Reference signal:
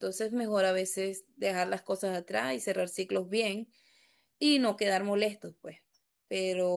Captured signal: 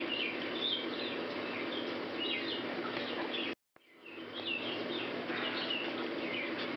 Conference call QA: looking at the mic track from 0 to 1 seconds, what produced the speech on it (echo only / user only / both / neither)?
neither